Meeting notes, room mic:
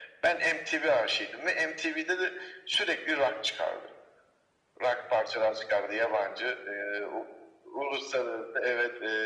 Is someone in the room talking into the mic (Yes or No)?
No